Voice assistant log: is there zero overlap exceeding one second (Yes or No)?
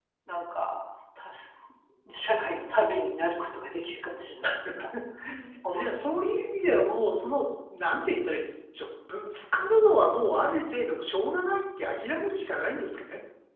Yes